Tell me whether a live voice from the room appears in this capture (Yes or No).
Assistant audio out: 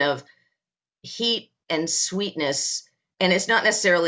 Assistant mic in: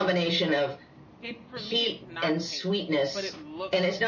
Yes